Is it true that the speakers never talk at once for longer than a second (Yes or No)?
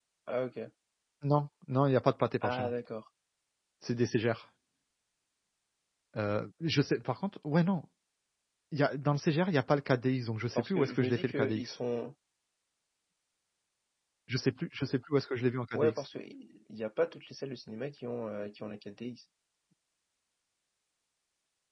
No